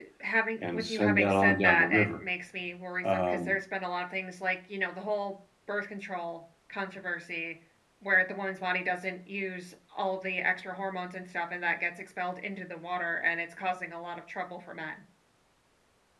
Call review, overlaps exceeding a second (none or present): present